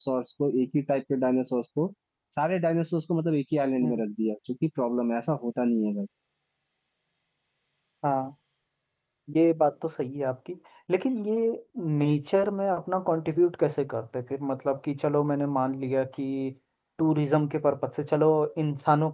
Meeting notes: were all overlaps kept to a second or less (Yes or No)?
Yes